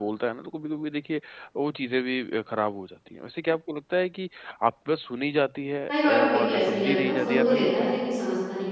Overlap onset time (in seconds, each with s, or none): 5.9 s